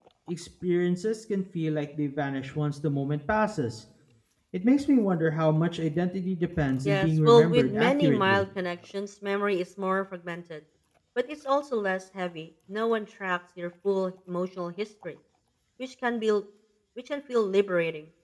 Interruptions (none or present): present